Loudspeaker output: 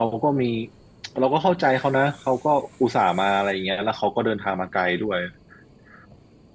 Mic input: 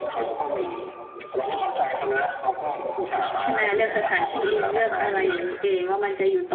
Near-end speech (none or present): present